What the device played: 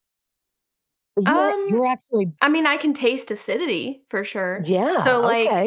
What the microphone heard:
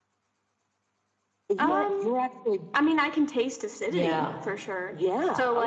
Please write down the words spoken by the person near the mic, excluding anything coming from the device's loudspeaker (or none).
yeah,